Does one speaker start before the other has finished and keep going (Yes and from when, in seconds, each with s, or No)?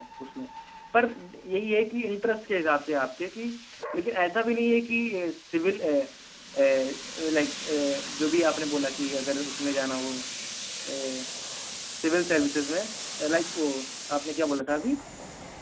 No